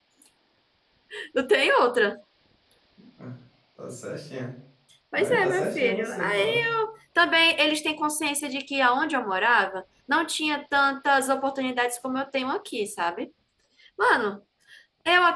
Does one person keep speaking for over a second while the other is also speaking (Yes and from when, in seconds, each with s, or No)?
Yes, from 5.2 s